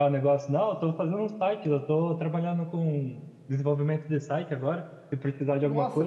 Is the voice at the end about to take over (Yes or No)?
Yes